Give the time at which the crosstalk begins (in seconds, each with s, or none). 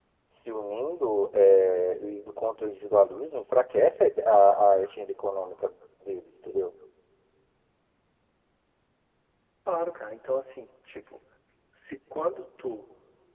none